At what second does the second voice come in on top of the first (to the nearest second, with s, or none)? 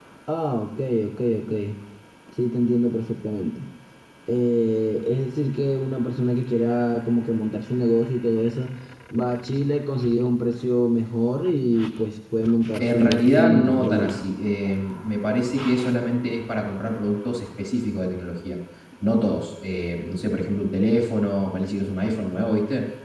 13 s